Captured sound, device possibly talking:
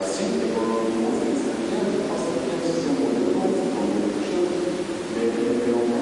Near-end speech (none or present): none